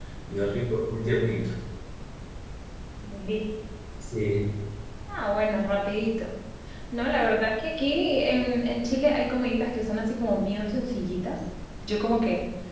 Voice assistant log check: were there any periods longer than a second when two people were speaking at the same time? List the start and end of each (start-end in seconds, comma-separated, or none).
none